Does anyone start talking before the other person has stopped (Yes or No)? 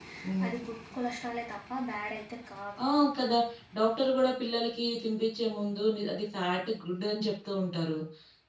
No